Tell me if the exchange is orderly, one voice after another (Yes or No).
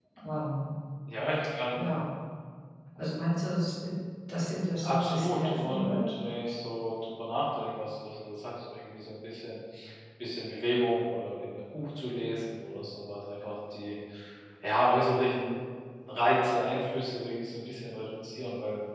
No